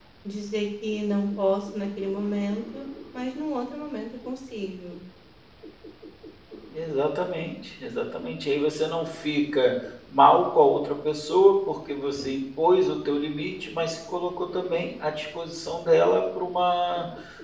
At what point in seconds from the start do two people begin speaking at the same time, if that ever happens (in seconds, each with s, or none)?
none